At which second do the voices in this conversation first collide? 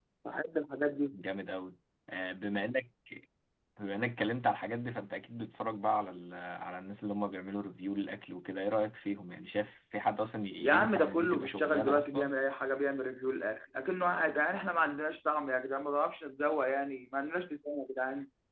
11 s

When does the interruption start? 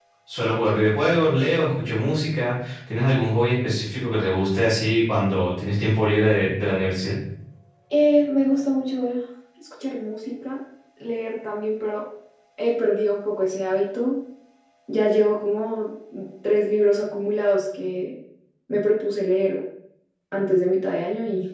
none

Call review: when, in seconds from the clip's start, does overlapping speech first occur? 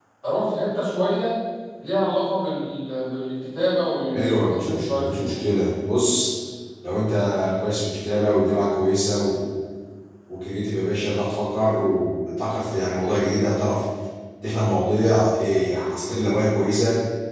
4 s

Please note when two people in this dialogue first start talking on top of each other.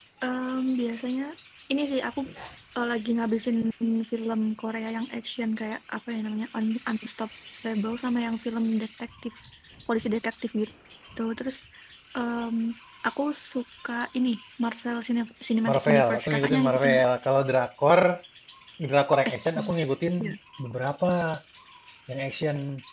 16 s

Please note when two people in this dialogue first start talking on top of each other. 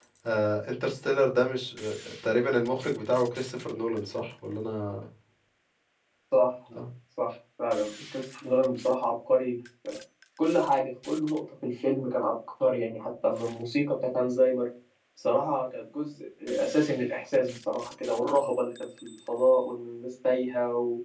none

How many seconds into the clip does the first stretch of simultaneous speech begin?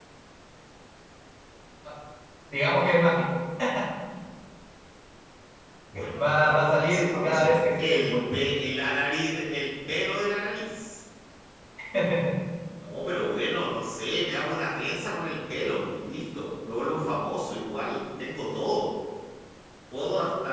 6 s

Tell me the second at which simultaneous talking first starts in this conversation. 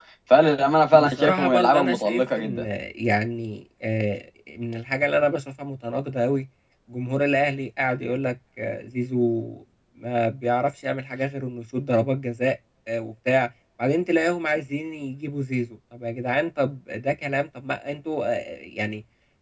1 s

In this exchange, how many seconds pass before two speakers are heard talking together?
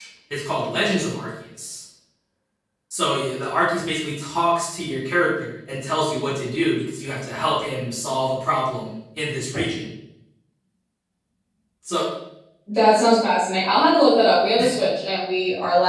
none

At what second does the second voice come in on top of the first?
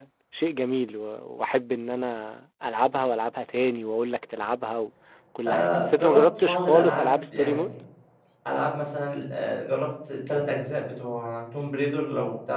5 s

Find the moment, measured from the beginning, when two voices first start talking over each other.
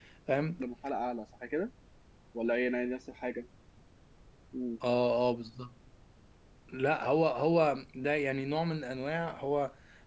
none

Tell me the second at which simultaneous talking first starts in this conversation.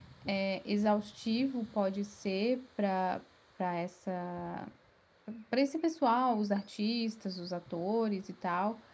none

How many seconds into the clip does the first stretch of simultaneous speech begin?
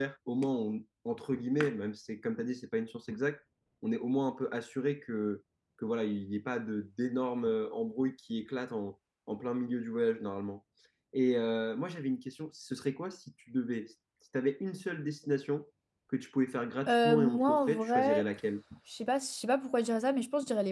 17 s

